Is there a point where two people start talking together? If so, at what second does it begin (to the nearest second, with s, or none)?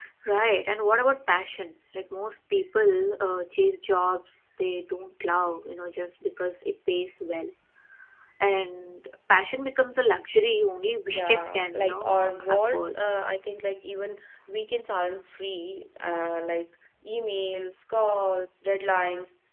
11 s